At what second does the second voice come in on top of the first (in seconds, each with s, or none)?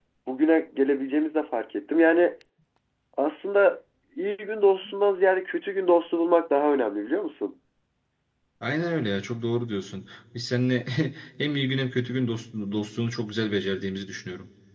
none